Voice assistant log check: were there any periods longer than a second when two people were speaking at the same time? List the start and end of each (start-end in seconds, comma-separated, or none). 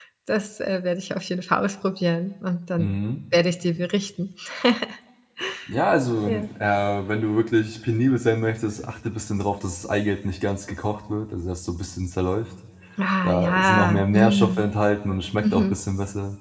13.2-14.7